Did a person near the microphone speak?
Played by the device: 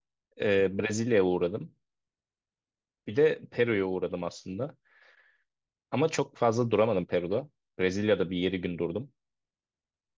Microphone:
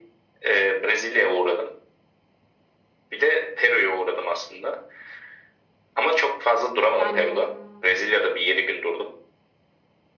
Yes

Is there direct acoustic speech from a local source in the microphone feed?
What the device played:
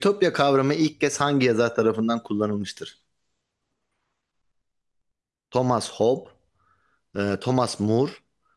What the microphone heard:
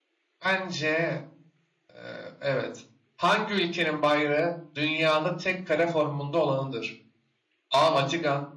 Yes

